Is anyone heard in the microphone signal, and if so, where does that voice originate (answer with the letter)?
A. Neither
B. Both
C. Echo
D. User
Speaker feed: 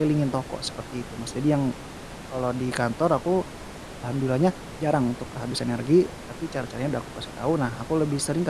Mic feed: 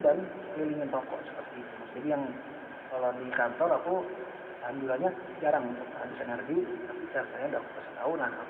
C